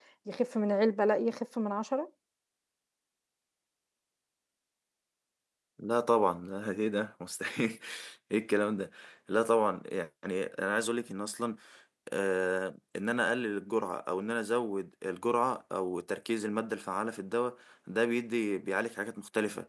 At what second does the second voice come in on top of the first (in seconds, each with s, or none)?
none